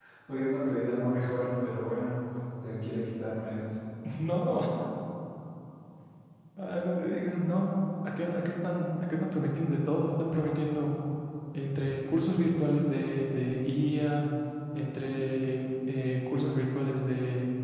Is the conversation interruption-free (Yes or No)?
Yes